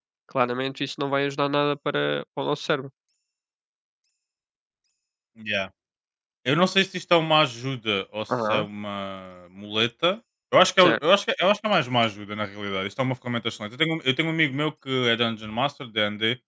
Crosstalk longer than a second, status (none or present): none